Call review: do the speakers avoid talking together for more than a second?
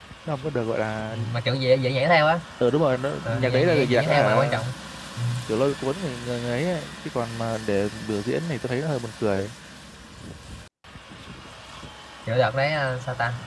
No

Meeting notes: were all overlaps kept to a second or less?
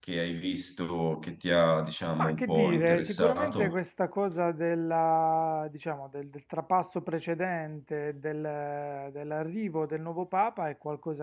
No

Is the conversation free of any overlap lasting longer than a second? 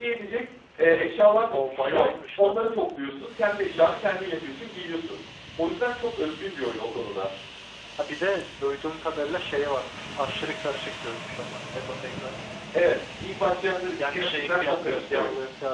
No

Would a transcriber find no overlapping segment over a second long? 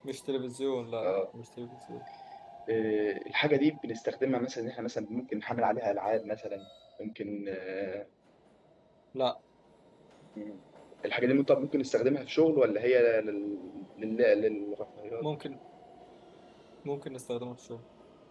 Yes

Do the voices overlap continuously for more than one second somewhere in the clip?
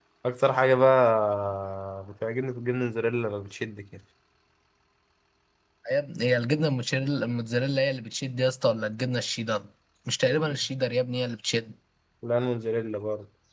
No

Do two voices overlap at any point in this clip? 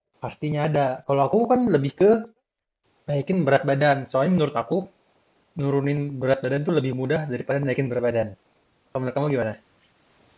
No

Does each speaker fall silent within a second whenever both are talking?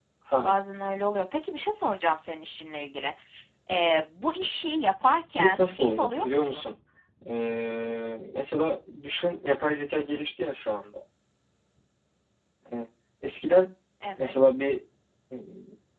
No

